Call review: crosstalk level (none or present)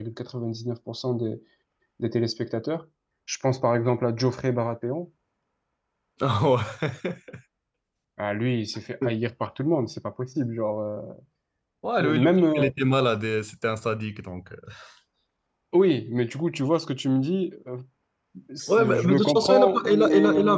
present